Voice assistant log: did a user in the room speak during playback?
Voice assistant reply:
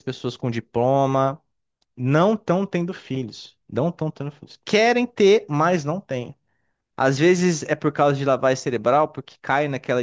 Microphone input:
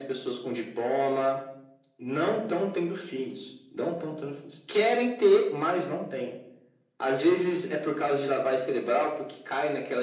No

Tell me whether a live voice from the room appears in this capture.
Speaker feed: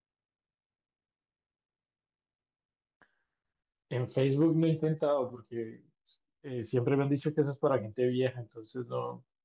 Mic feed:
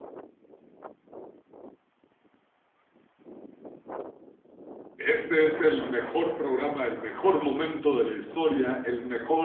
Yes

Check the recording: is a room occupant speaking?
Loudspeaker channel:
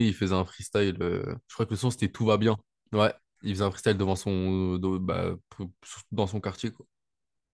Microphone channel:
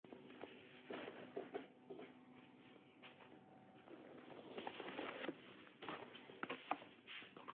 No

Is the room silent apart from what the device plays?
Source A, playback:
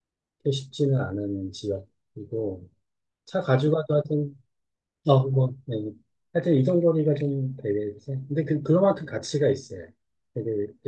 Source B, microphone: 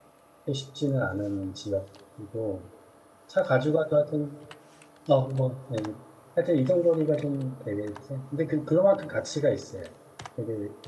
Yes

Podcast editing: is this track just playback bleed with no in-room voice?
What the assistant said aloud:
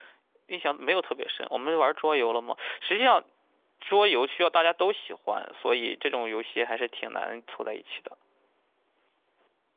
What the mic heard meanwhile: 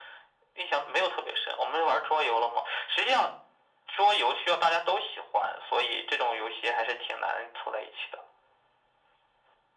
Yes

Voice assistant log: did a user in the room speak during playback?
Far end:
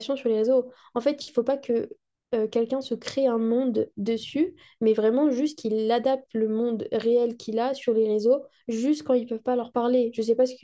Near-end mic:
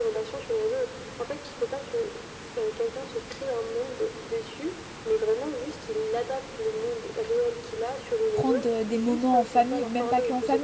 Yes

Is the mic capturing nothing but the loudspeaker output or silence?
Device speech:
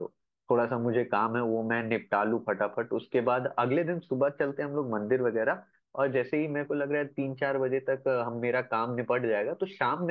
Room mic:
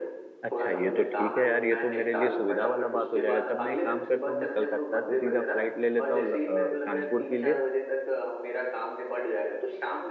No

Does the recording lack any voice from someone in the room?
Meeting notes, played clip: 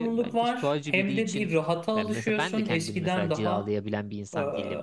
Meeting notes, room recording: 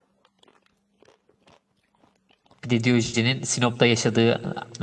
No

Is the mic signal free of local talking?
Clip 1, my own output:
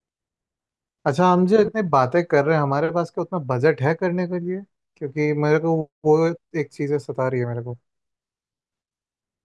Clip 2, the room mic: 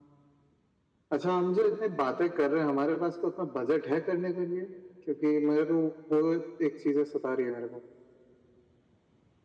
Yes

